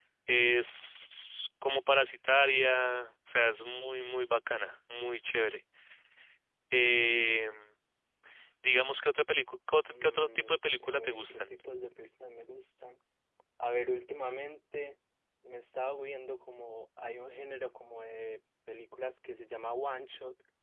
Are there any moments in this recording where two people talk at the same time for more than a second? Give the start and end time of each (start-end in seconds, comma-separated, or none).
9.9-11.5